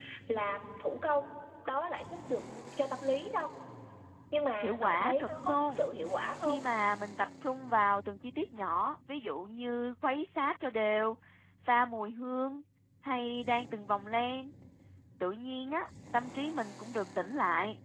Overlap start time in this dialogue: 4.6 s

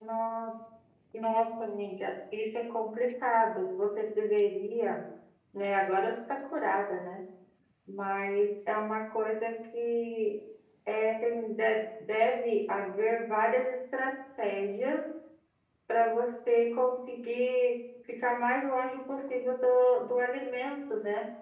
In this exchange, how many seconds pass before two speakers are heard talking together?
none

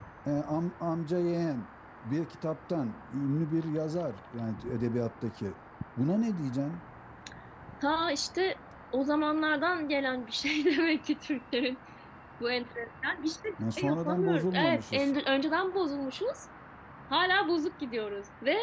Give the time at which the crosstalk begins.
13.6 s

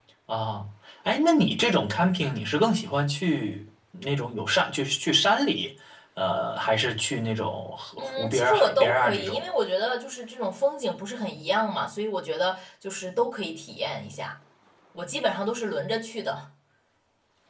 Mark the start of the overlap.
8.0 s

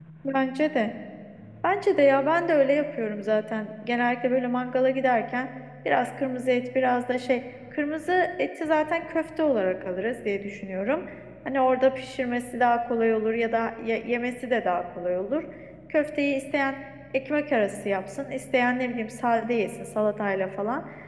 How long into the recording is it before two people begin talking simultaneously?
none

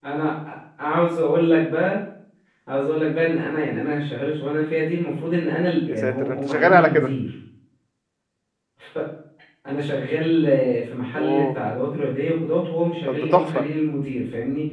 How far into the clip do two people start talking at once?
5.9 s

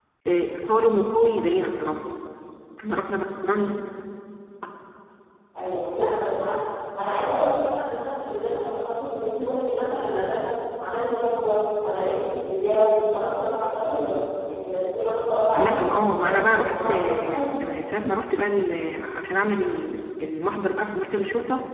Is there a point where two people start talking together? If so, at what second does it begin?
15.6 s

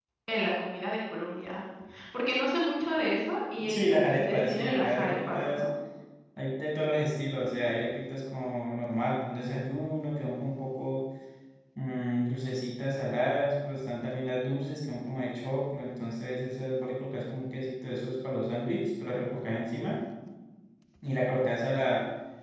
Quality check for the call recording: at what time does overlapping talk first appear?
3.6 s

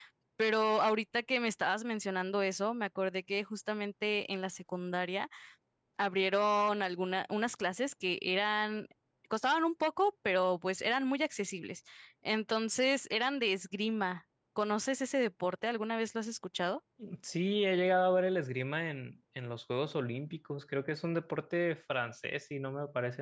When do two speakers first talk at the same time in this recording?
none

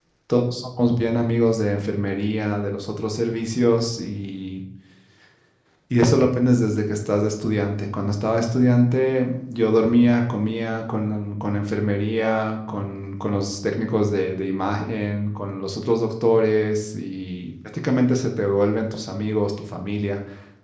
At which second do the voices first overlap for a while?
none

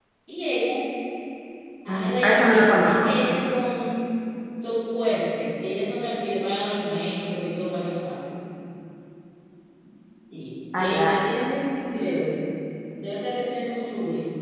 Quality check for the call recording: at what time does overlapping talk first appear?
1.9 s

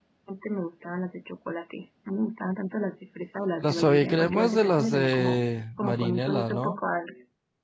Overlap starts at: 3.6 s

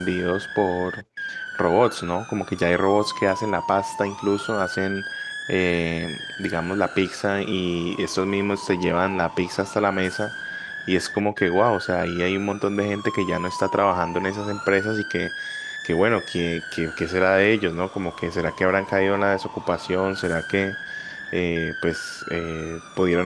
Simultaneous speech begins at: none

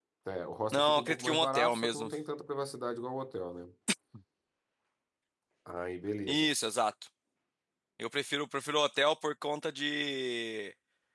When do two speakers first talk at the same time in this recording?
0.7 s

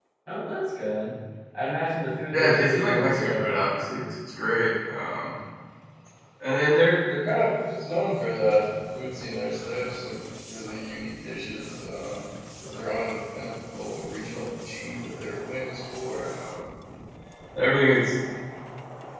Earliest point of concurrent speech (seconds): 2.3 s

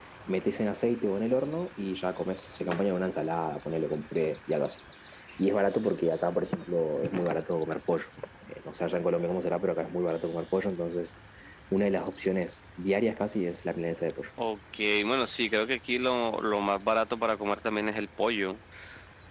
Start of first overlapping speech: none

